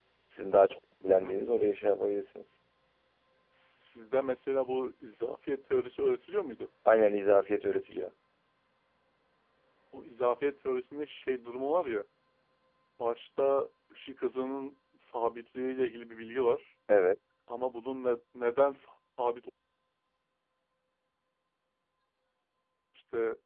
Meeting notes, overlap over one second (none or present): none